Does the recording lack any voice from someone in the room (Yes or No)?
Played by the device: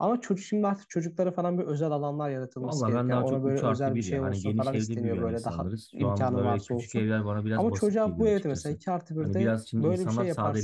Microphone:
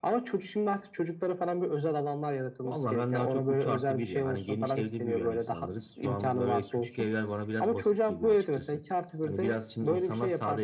Yes